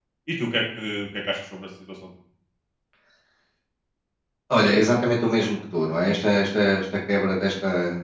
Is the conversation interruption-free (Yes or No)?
Yes